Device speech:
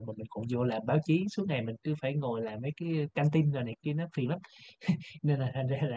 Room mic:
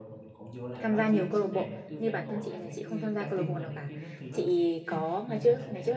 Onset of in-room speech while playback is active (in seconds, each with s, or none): 0.8 s